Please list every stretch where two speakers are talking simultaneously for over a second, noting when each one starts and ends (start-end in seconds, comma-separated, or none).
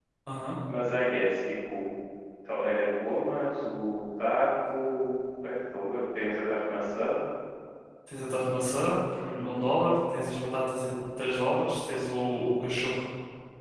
none